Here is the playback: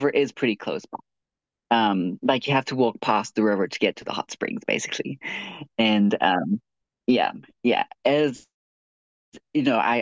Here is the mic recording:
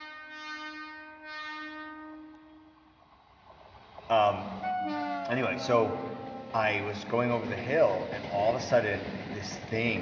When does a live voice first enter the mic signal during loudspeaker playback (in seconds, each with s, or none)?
4.1 s